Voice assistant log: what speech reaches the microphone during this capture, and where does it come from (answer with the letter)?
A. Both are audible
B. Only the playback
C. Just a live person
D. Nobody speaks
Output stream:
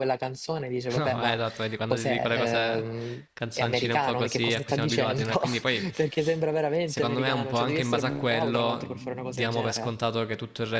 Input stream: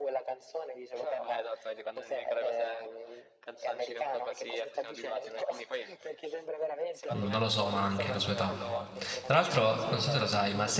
A